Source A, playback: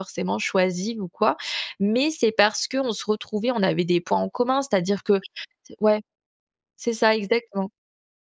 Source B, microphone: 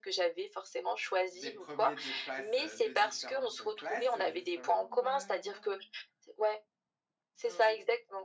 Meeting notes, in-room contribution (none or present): present